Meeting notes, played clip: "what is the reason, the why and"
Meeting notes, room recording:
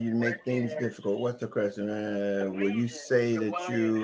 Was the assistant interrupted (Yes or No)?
Yes